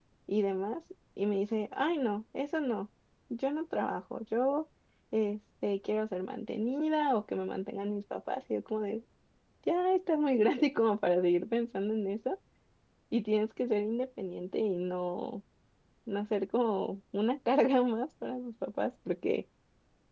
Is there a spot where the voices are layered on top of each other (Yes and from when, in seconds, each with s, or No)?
No